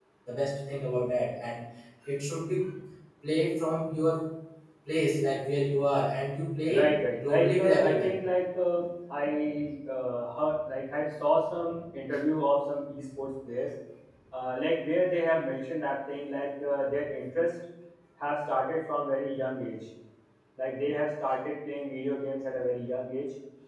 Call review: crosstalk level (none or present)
present